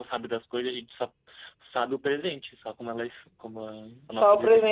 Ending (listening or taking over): taking over